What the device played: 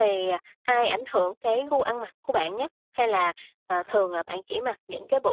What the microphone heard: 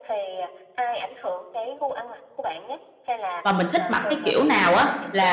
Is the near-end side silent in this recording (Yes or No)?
No